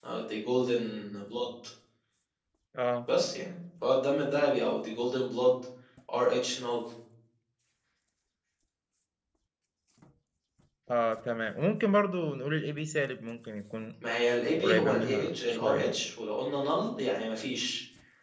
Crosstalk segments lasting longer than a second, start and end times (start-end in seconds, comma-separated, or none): 14.6-15.9